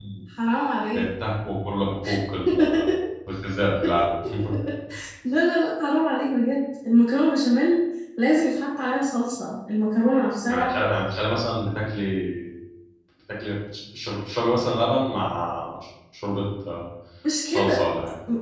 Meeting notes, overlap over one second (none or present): none